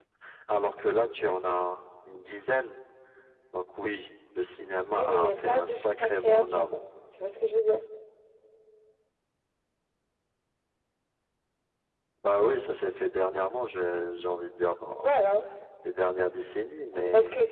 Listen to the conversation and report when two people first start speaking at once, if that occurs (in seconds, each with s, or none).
5.0 s